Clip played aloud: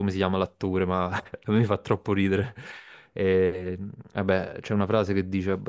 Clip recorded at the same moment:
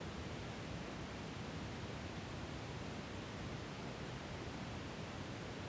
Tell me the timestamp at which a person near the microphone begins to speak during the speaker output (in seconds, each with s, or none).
none